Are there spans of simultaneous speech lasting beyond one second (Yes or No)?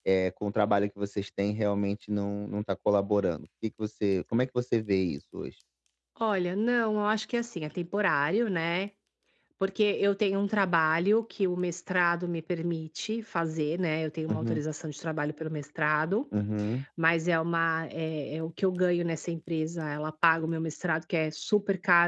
No